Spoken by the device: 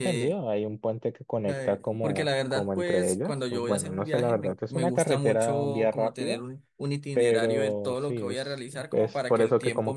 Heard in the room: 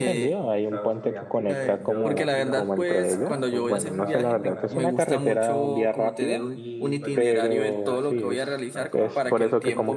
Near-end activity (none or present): present